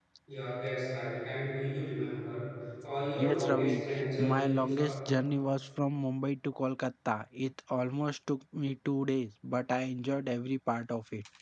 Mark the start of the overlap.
3.2 s

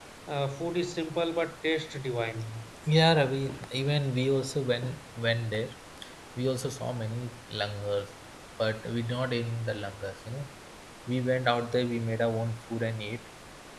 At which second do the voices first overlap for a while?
none

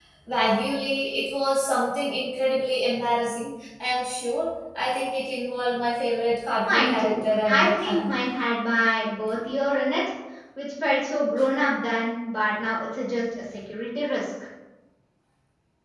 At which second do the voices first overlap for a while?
6.6 s

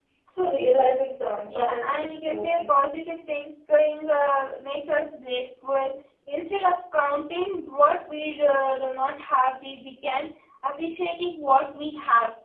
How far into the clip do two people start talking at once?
1.5 s

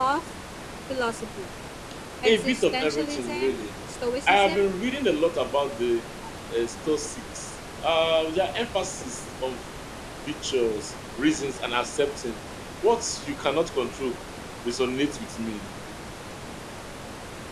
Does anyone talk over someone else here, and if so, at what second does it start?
2.2 s

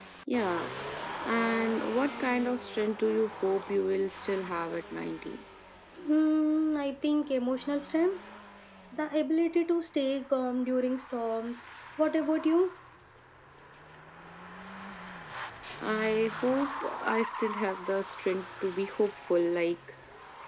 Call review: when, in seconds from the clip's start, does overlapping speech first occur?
none

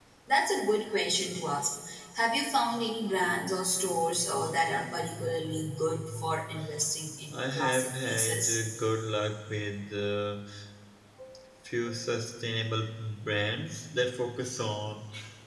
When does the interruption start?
7.3 s

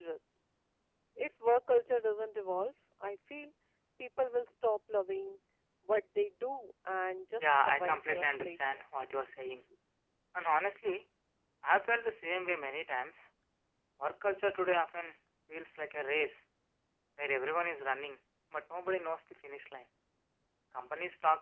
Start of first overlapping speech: 7.4 s

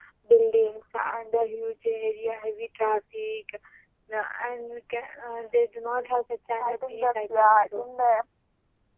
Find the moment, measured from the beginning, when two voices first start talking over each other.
6.6 s

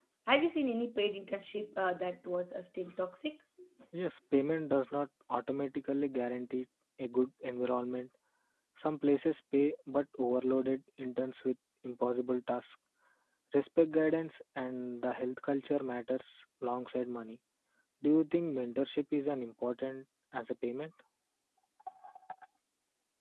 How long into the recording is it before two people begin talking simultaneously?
none

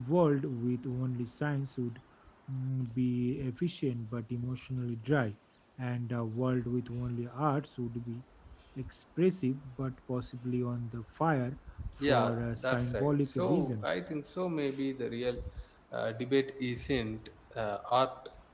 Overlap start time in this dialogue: 12.0 s

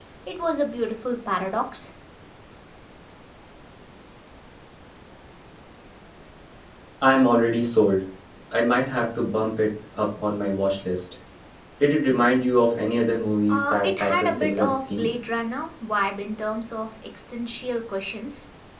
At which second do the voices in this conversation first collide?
13.5 s

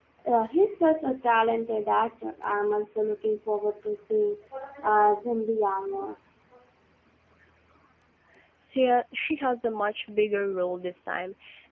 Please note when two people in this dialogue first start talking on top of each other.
none

